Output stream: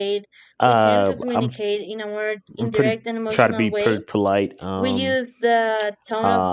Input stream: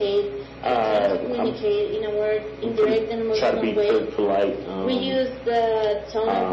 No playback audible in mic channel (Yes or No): No